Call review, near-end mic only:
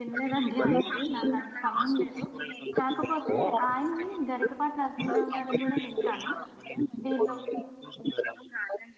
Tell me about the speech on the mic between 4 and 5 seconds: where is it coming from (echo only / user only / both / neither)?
both